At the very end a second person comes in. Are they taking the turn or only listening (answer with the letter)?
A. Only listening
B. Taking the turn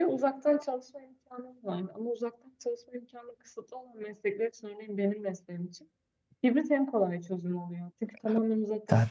B